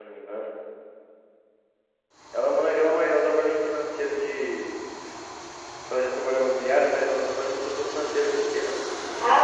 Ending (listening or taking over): taking over